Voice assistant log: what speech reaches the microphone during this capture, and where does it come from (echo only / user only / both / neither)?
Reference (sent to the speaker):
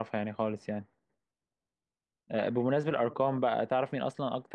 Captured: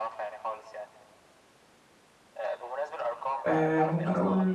both